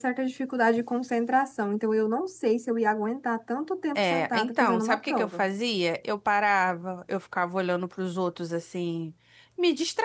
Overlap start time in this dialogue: 4.0 s

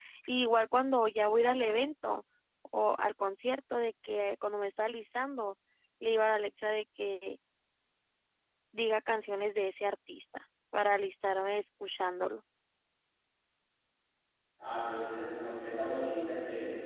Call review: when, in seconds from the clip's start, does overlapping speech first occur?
none

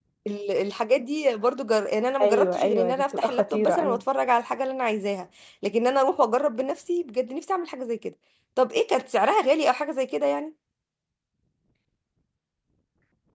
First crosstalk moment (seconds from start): 2.2 s

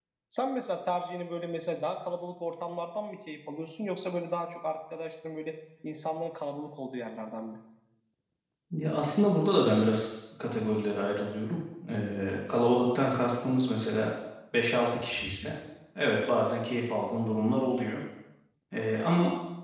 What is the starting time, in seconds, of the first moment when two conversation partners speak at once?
none

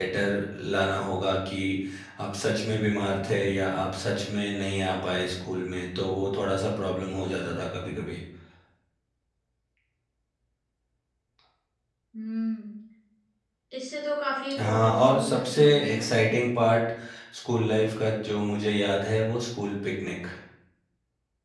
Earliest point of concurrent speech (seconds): 14.6 s

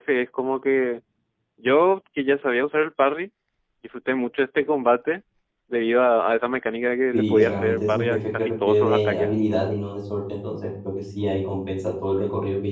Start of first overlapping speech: 7.1 s

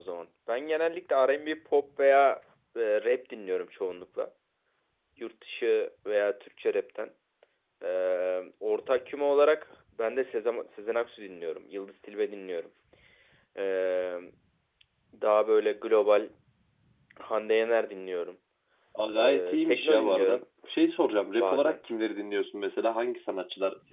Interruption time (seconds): 19.2 s

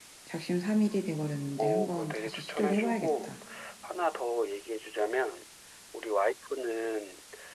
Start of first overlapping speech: 1.6 s

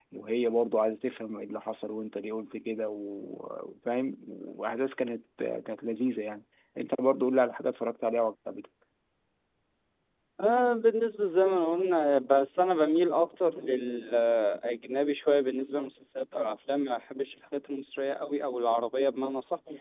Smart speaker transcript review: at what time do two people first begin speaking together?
none

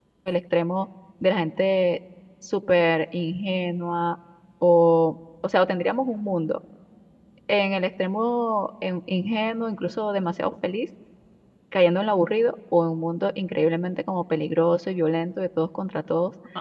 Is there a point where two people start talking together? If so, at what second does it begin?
none

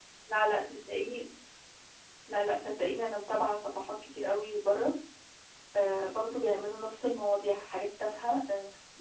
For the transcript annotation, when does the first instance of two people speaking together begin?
none

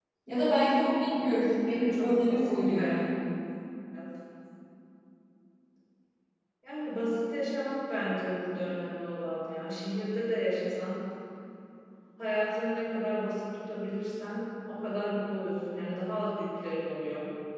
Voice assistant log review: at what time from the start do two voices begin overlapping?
1.7 s

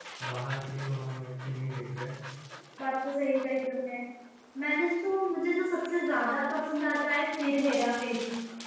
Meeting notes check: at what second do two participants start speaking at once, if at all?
none

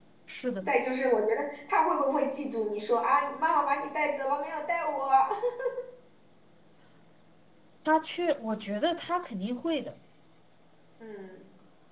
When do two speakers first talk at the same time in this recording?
none

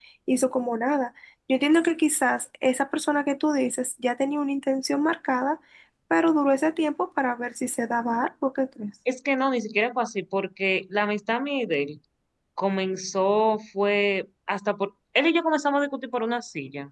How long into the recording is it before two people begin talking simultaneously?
none

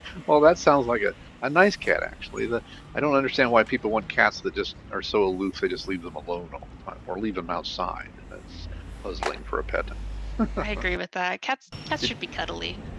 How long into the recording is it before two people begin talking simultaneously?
none

